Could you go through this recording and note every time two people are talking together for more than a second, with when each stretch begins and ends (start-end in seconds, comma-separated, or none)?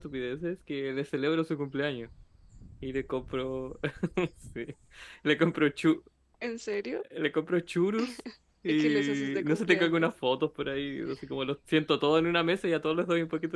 8.7-10.1